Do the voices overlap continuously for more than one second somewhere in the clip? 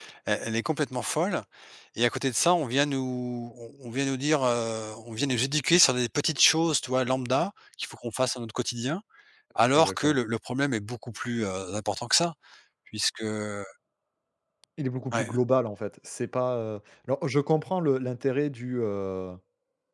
No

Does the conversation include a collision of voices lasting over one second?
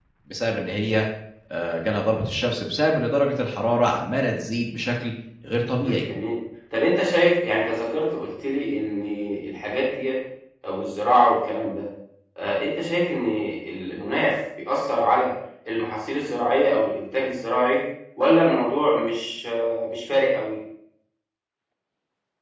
No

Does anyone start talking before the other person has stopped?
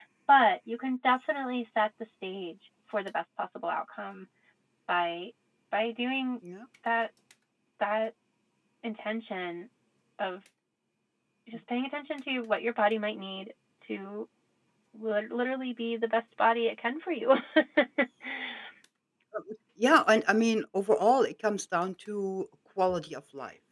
No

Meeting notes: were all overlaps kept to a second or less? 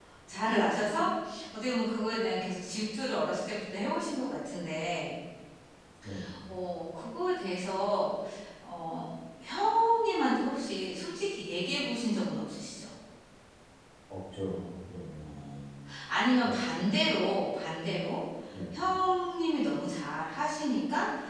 Yes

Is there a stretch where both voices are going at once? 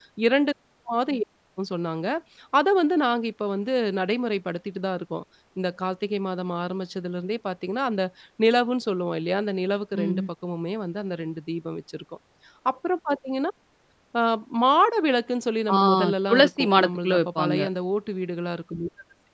Yes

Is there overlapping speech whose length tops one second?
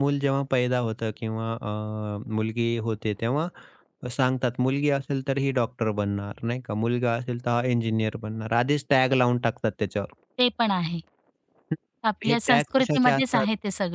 Yes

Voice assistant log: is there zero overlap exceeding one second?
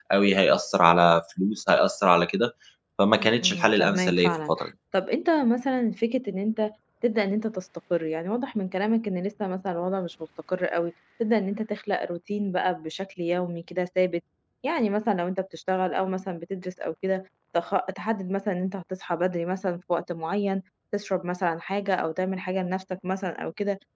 No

